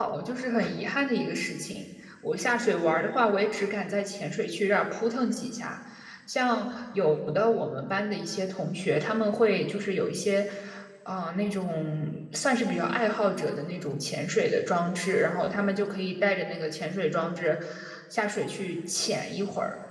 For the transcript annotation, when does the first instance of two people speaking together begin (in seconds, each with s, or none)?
none